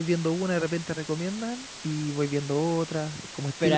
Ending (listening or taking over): taking over